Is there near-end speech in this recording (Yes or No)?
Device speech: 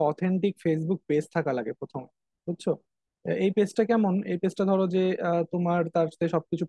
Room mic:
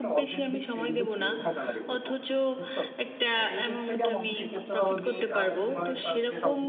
Yes